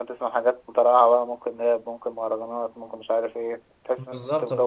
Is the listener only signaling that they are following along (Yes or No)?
No